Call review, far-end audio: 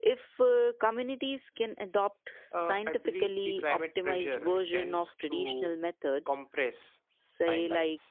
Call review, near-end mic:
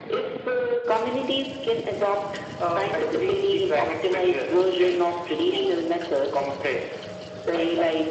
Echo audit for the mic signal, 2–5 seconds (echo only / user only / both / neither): echo only